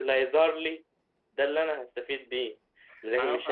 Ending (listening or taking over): listening